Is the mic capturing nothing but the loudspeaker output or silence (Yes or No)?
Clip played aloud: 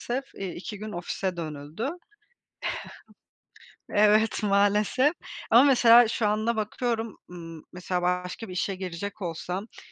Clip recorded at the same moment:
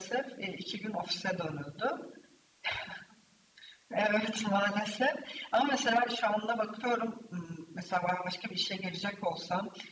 Yes